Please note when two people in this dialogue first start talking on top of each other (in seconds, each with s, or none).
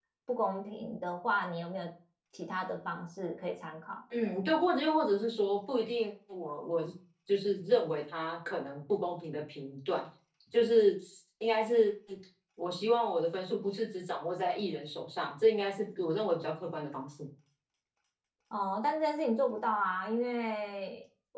none